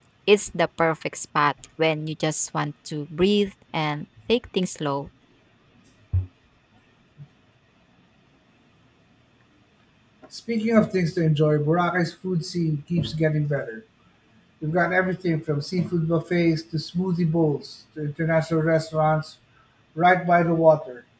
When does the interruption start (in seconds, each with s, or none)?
none